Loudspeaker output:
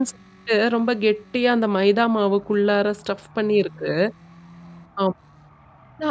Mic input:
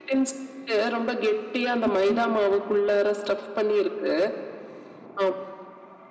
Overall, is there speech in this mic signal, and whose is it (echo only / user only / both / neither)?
both